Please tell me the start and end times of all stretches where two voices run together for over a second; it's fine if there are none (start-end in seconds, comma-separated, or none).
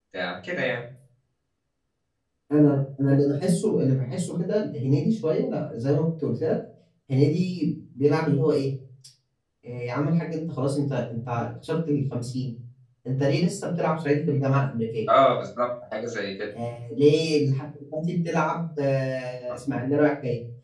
none